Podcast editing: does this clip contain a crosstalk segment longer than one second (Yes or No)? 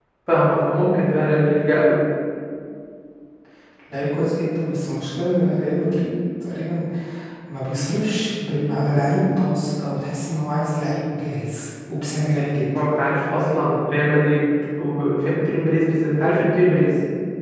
No